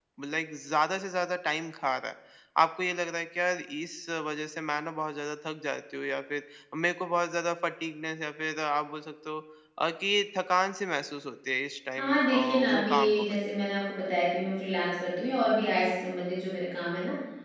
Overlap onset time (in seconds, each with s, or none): 12.0 s